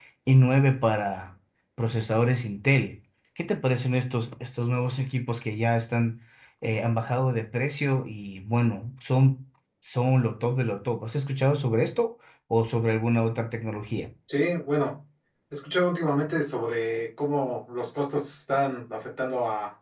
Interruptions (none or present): none